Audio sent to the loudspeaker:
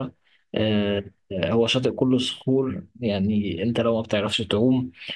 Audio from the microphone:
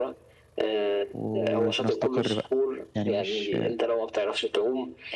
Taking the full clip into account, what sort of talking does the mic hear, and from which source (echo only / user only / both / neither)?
both